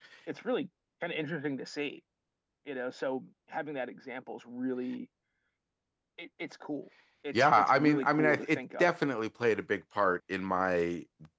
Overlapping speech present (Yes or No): Yes